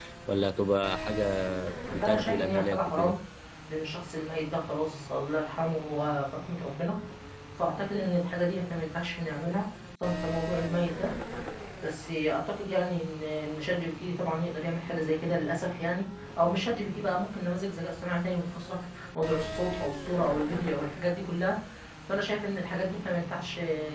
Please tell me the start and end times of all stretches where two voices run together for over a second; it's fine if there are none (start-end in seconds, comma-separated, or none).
1.9-3.2